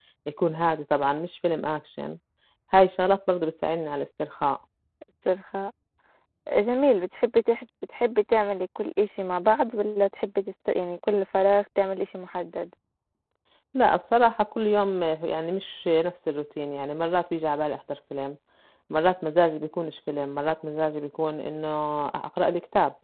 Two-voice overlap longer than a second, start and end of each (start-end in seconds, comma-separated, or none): none